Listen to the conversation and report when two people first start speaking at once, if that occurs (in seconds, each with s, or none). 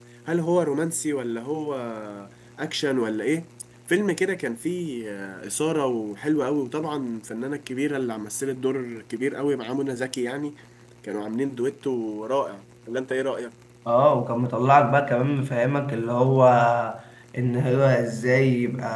none